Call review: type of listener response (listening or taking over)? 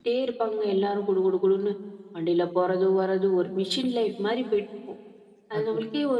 listening